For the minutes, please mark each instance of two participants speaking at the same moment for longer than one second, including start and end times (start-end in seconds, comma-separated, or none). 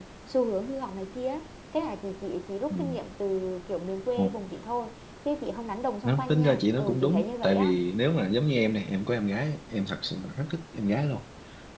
6.0-7.8